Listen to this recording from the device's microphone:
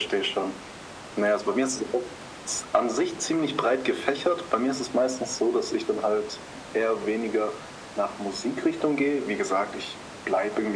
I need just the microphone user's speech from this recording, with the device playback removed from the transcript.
none

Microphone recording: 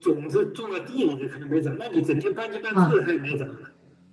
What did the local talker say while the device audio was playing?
啊

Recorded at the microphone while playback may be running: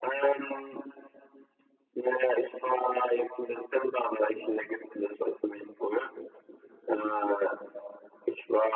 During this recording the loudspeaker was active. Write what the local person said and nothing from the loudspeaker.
none

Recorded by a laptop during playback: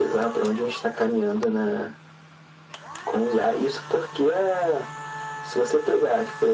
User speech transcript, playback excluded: none

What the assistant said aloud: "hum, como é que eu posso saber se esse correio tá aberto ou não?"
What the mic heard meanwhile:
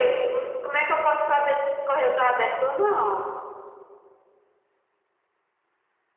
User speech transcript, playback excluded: none

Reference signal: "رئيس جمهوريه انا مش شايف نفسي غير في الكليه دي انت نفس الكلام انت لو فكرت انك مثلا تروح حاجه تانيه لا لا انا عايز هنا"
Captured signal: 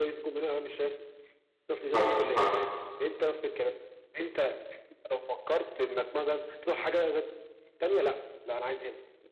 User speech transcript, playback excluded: حصل حصل

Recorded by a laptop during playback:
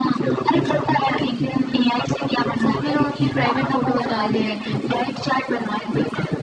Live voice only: उसमें लोग अपनी प्राइवेट फोटोज डाल दे रहे थे

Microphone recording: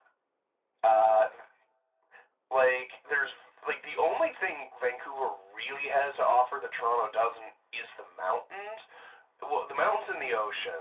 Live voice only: none

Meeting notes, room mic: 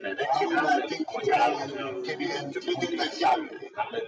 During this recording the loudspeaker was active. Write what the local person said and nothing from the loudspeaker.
还有一个就是热季，

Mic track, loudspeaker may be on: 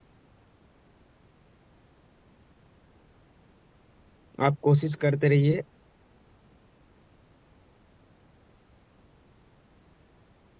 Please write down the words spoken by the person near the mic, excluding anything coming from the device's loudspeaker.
आप कोशिश करते रहिए

